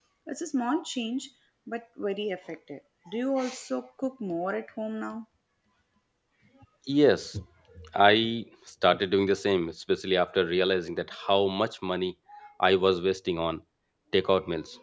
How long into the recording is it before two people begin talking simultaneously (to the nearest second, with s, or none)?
none